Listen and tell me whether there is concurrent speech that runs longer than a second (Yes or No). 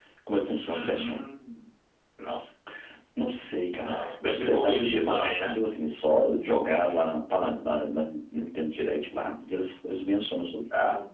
Yes